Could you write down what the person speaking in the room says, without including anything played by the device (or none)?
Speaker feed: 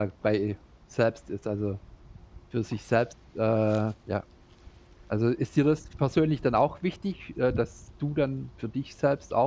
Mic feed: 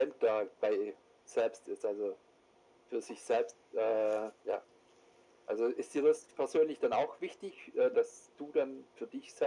none